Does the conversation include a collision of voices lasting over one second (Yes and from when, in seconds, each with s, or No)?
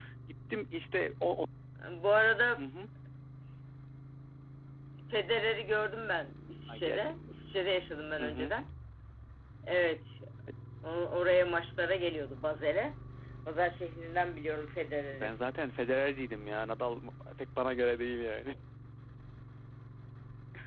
No